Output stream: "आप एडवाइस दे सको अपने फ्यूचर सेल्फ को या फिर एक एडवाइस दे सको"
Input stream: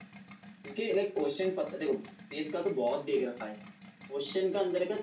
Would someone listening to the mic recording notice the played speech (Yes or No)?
No